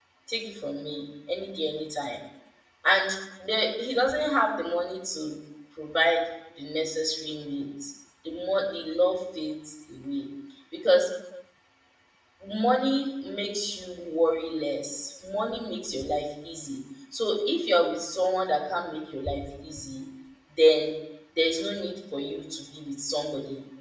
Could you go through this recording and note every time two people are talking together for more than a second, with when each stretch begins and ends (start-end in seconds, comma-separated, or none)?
none